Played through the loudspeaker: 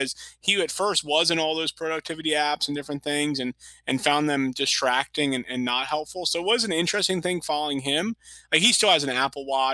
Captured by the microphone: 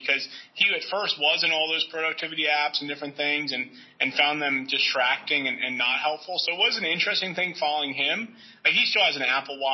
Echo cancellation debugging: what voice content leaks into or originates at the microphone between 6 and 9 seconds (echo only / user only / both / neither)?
echo only